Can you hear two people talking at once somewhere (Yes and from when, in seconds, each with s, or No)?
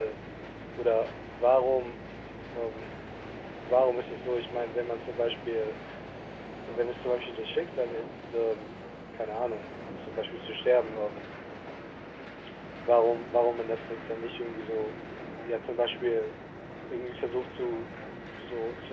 No